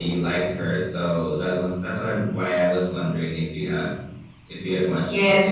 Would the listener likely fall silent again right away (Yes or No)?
No